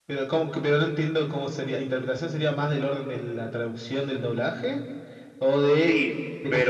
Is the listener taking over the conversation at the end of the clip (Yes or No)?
Yes